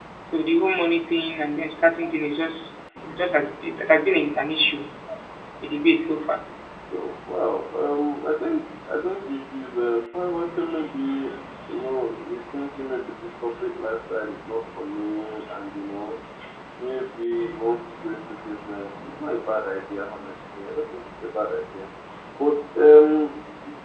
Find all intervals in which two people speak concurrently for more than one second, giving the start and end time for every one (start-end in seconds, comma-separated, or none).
none